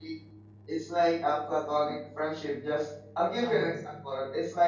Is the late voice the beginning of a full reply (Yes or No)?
No